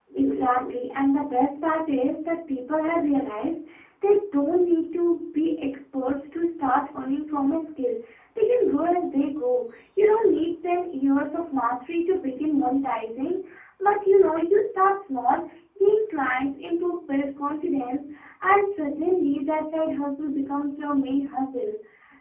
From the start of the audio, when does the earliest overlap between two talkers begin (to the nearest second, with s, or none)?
none